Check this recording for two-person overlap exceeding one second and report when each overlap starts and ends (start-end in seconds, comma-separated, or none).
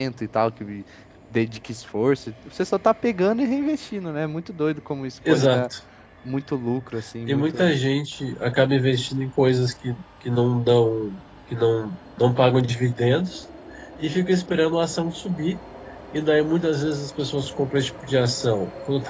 none